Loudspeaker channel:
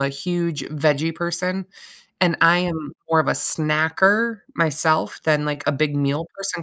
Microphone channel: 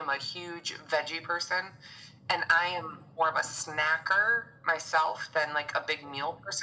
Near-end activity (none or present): none